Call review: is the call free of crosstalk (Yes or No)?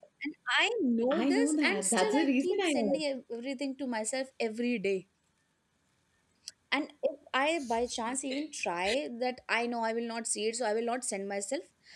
No